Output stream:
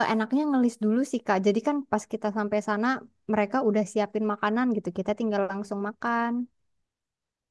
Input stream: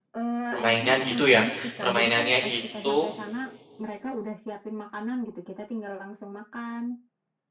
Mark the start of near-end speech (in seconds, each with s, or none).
0.5 s